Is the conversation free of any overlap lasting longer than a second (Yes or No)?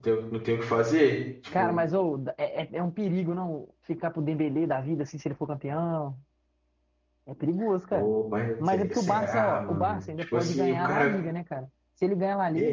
No